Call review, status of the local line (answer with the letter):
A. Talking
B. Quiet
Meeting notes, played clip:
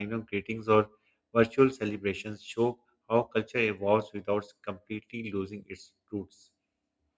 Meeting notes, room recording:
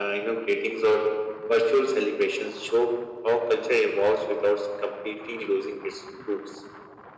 B